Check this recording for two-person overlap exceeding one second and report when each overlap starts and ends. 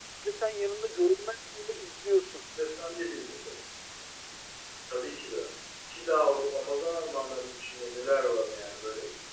none

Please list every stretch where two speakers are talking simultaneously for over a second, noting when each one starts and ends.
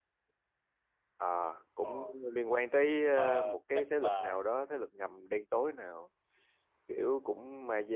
3.2-4.4

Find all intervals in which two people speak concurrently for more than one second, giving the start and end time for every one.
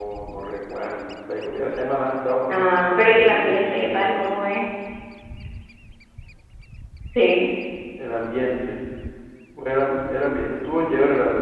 2.5-4.3

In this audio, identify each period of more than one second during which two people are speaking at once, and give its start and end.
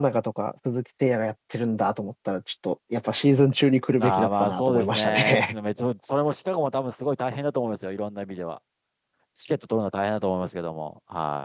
4.0-5.5

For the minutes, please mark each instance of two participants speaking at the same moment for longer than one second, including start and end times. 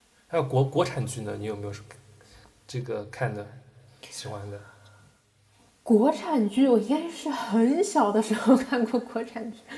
none

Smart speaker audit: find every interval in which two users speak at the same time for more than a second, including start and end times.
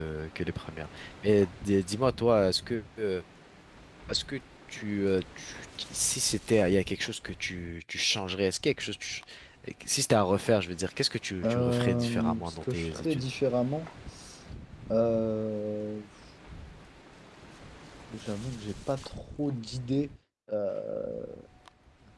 11.4-13.2

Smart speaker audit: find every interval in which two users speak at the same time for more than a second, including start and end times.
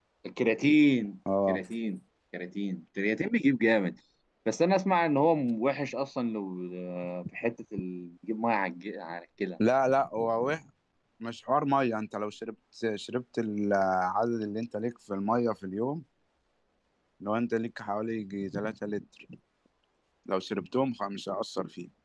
none

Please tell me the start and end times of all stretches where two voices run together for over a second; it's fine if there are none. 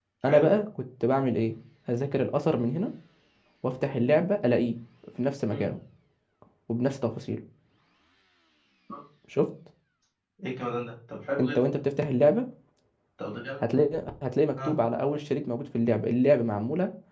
none

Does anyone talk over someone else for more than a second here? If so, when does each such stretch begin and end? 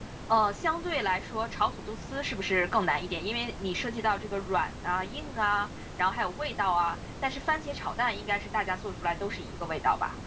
none

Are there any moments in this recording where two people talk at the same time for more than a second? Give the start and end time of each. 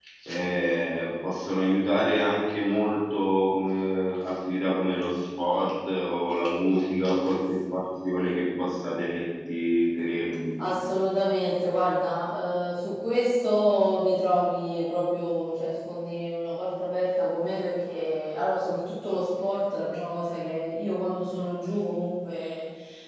none

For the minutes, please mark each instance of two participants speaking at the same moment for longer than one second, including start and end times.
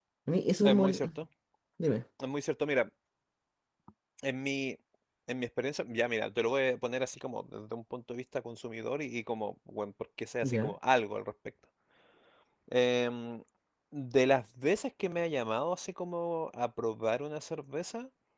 none

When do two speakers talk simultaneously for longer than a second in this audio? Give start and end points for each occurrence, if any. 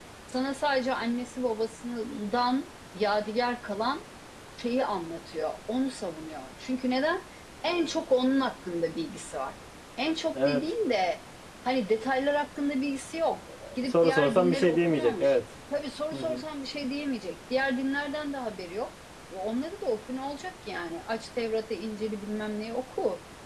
13.8-15.4

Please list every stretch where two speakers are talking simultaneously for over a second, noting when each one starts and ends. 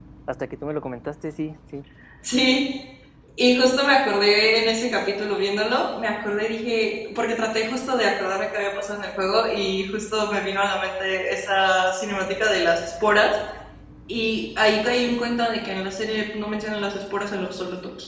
none

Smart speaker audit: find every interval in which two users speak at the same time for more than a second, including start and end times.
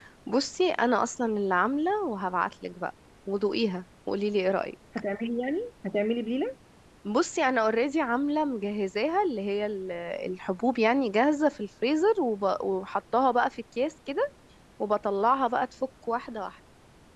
none

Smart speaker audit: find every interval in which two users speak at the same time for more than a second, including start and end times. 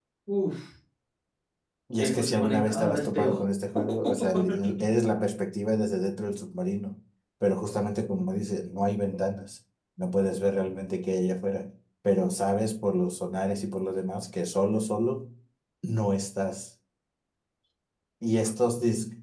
2.0-3.4

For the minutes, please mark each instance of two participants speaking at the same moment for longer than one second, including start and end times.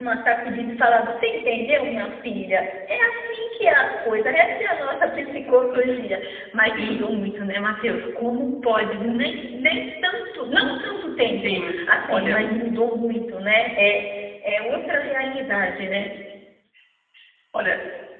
none

